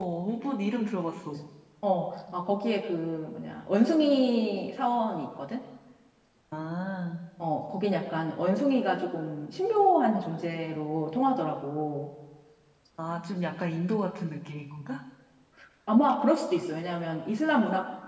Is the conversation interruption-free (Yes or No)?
Yes